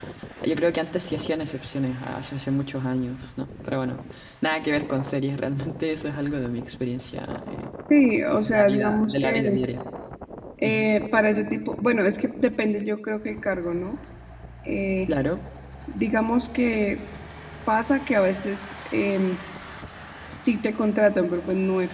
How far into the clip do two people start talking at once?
8.3 s

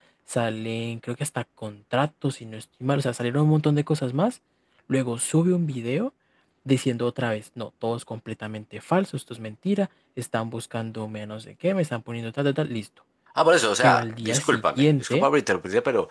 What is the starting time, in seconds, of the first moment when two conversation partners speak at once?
13.8 s

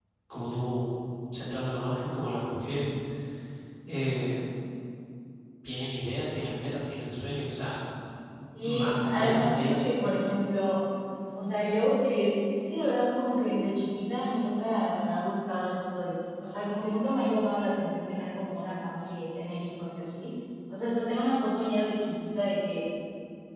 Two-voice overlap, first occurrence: 8.6 s

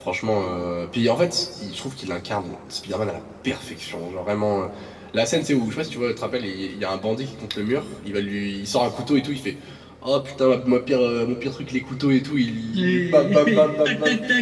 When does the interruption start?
12.7 s

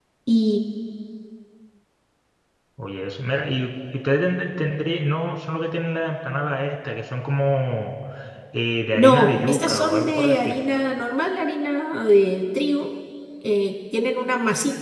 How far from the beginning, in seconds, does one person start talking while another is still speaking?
9.0 s

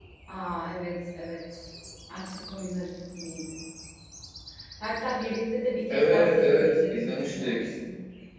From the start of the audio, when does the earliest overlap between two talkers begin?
5.9 s

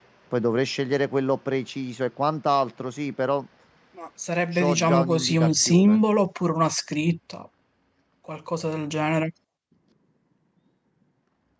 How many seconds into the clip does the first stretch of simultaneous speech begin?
4.5 s

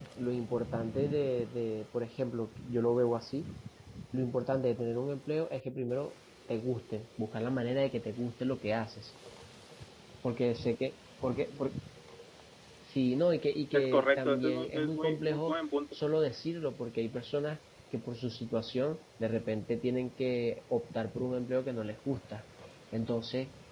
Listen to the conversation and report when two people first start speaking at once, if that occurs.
13.7 s

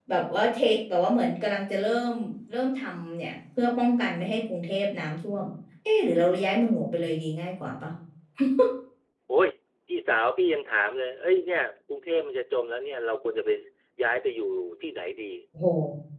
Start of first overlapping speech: none

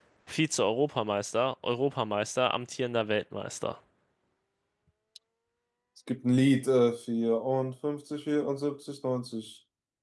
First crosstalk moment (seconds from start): none

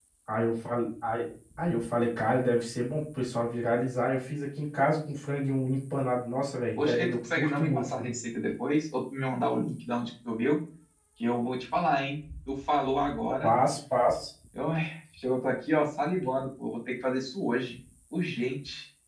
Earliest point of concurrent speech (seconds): 6.8 s

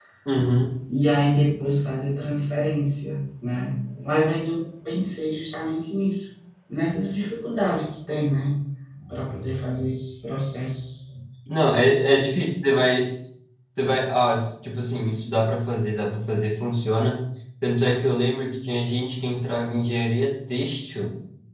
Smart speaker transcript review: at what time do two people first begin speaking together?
none

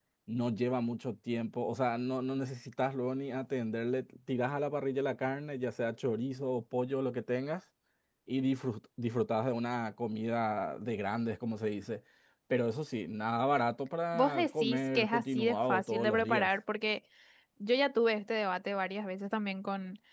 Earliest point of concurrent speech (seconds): 14.1 s

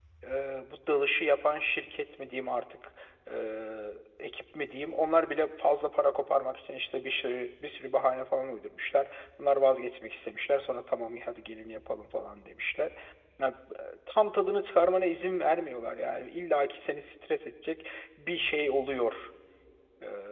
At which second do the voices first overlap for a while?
none

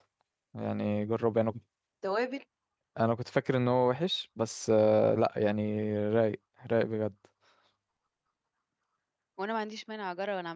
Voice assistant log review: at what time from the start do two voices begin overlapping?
none

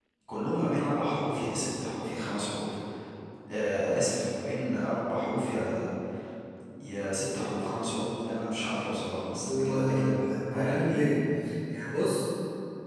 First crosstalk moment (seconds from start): 9.4 s

